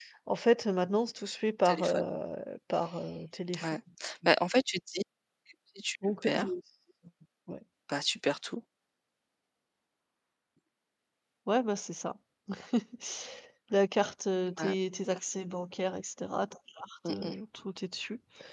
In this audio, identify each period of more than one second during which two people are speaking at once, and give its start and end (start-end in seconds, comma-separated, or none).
none